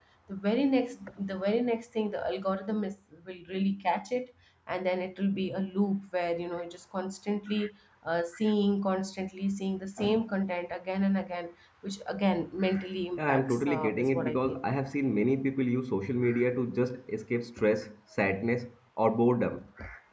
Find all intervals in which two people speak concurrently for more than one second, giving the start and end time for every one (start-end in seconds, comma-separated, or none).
13.2-14.6